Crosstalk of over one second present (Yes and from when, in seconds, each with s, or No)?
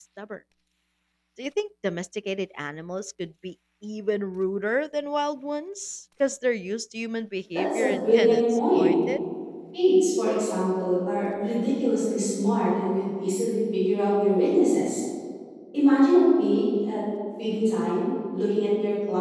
Yes, from 7.6 s